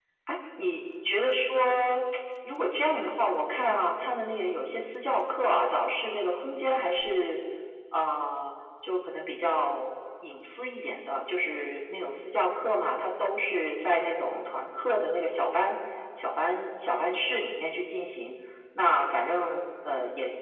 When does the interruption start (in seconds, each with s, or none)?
none